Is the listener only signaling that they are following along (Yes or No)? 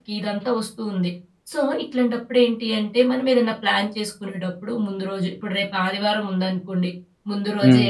Yes